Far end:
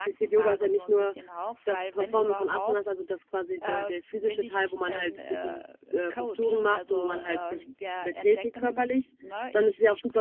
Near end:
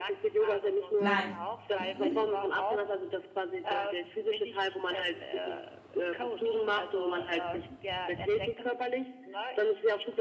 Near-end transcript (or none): Nein. Mhm.